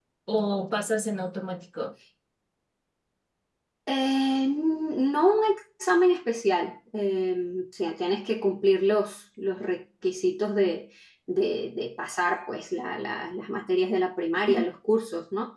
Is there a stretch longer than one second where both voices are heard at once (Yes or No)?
No